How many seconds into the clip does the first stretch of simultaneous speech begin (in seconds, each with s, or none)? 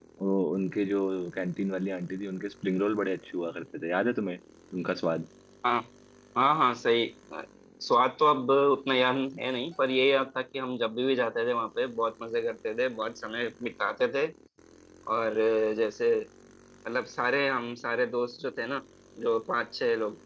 none